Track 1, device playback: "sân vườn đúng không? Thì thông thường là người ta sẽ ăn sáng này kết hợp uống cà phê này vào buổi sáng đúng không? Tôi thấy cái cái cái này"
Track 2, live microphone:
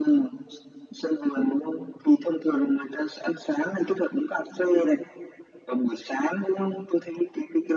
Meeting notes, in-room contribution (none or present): none